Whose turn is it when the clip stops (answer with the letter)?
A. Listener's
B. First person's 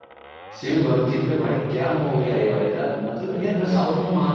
B